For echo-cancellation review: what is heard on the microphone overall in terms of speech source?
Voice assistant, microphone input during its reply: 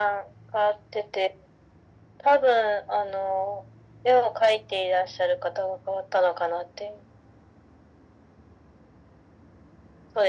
echo only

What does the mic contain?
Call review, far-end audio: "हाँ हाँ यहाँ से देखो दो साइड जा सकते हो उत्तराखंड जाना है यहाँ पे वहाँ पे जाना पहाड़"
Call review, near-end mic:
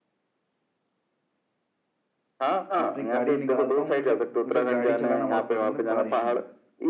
both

